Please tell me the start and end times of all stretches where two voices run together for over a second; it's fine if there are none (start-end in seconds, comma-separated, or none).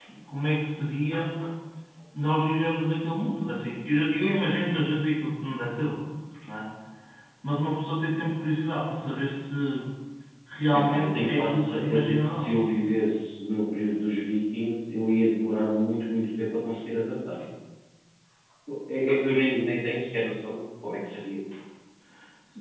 10.9-12.5